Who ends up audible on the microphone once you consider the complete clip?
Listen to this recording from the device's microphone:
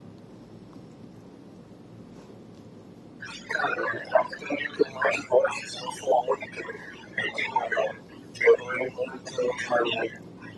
echo only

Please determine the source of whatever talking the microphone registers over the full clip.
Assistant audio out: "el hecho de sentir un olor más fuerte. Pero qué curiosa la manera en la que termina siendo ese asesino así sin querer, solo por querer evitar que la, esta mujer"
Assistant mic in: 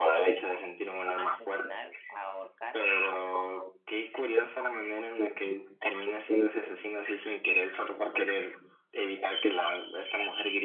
both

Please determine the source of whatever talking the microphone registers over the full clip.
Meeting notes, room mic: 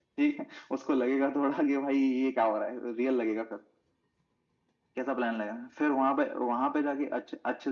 echo only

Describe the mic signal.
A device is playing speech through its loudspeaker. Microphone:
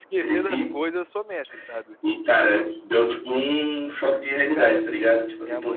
both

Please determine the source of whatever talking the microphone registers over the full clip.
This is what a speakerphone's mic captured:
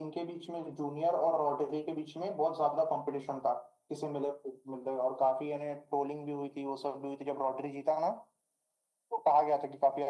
echo only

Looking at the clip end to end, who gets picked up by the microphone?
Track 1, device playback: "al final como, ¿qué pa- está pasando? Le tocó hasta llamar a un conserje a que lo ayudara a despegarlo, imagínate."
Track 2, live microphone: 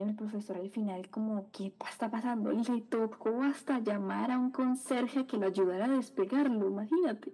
echo only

